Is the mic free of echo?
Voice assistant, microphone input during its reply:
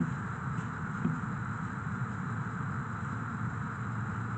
Yes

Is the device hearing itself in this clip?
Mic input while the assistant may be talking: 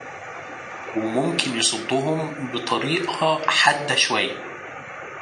No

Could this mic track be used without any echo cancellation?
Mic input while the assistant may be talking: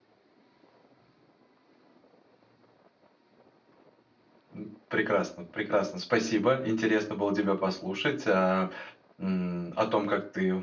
Yes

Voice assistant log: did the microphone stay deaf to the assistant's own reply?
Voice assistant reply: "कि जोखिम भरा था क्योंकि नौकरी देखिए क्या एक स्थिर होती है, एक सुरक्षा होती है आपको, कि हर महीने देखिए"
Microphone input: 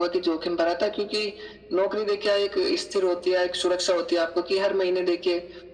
No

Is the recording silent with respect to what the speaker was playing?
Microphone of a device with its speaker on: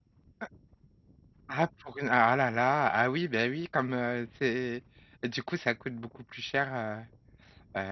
Yes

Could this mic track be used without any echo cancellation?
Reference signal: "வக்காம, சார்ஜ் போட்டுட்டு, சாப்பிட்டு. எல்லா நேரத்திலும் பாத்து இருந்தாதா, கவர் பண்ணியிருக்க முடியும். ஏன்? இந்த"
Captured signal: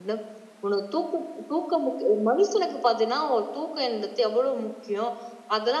Yes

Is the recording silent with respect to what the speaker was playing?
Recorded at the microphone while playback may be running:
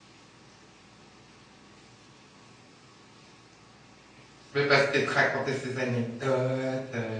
Yes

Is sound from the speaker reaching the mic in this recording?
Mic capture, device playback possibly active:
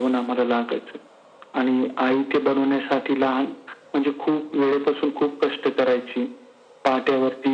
Yes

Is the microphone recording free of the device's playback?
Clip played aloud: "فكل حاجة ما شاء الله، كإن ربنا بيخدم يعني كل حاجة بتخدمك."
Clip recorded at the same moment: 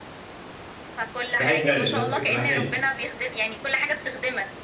No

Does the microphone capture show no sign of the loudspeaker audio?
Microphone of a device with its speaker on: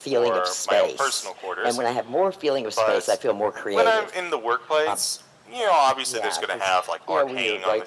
No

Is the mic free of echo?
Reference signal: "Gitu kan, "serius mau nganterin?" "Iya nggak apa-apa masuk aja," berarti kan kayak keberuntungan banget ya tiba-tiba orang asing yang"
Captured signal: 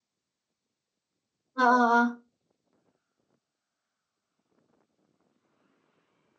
Yes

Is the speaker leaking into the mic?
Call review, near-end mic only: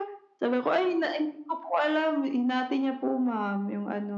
Yes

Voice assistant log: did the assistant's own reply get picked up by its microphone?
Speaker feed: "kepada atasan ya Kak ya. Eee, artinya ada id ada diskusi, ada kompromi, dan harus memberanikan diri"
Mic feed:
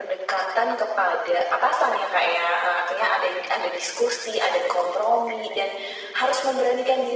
Yes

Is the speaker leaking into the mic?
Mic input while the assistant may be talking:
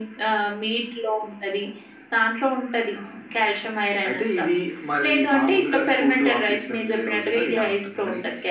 Yes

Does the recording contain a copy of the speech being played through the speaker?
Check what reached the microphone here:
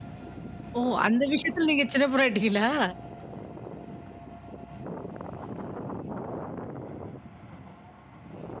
No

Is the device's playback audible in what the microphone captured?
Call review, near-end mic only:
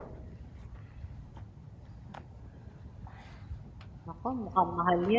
No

